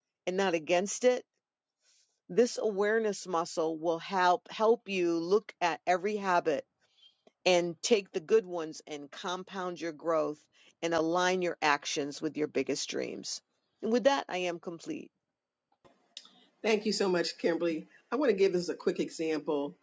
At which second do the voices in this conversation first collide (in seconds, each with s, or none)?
none